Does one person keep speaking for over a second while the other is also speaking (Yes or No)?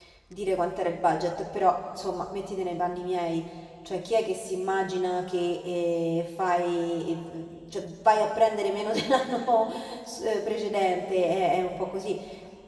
No